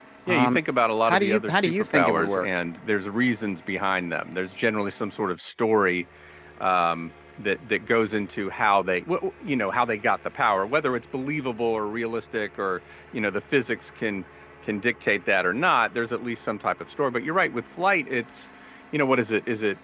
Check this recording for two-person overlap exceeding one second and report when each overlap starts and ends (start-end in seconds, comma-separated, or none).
1.1-2.5